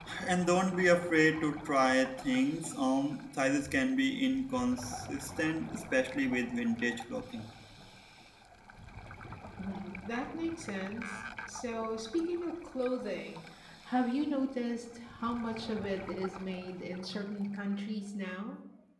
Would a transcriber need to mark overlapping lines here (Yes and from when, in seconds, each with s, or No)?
No